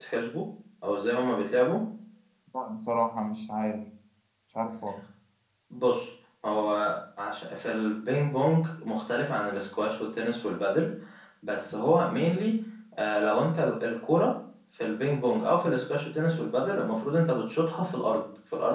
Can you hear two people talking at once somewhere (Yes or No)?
No